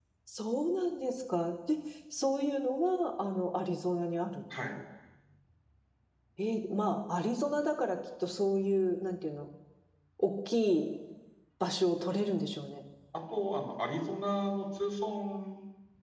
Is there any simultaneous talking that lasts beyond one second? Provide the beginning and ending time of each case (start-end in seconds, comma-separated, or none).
none